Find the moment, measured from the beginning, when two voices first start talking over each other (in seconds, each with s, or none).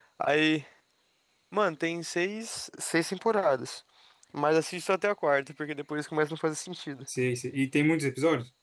none